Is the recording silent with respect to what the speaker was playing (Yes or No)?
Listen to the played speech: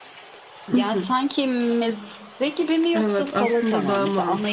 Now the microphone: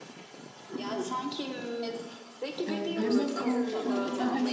No